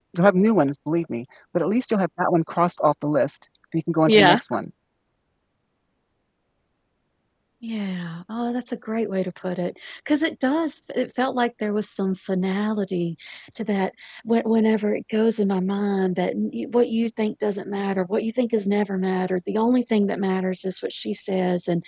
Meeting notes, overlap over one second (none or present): none